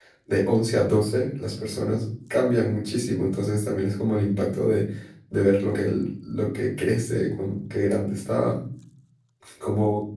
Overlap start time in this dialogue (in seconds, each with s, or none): none